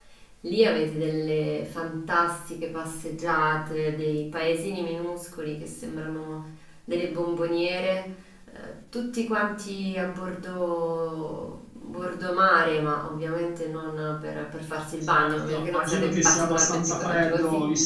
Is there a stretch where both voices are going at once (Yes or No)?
Yes